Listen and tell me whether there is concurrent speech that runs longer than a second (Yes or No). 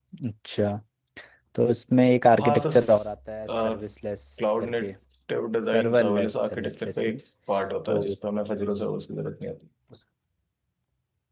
Yes